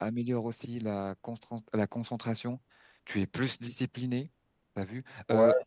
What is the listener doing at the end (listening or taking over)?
listening